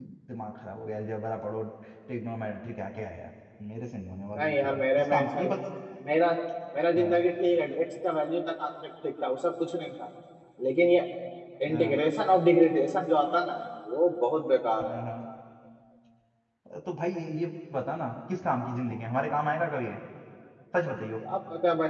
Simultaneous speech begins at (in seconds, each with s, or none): 4.3 s